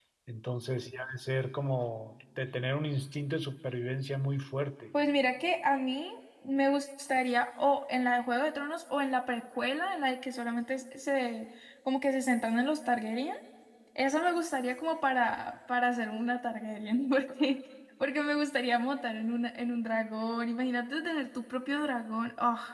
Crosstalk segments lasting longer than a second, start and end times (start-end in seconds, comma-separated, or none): none